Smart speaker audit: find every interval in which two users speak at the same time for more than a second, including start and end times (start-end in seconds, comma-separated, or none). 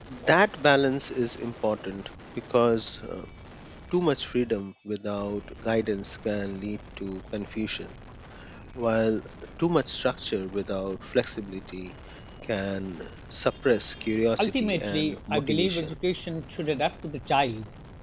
14.4-15.9